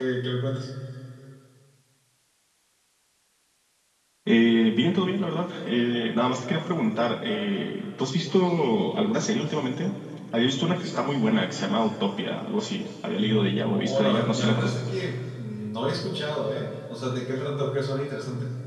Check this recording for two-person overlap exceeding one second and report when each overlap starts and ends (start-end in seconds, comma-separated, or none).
13.1-14.8